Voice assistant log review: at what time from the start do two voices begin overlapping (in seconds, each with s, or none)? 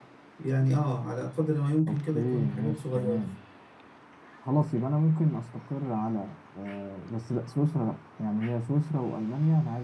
1.9 s